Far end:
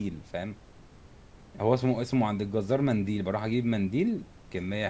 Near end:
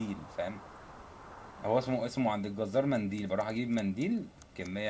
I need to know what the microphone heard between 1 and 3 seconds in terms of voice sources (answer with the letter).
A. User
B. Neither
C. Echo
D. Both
C